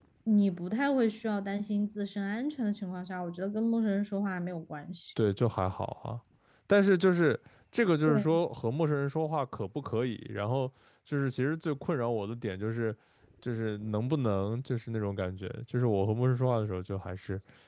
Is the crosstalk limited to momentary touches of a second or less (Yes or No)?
Yes